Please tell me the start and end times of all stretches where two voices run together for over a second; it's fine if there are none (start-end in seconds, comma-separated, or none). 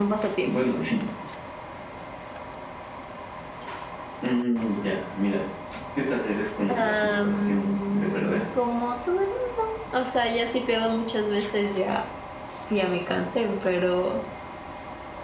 6.7-8.4